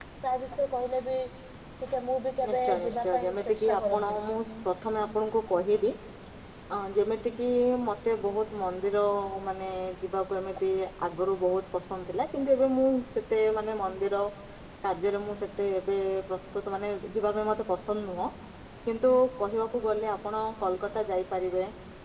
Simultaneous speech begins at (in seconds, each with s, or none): 2.5 s